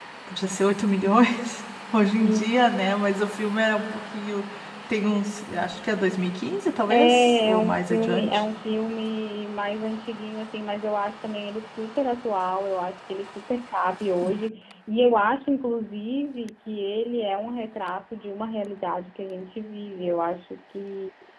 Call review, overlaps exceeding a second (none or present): present